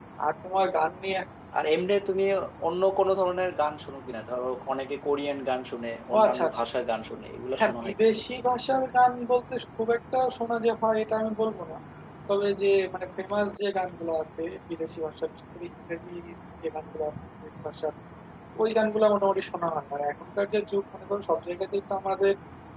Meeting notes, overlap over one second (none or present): none